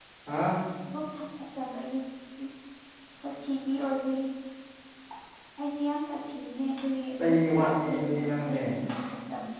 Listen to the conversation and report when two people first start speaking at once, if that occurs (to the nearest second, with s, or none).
7 s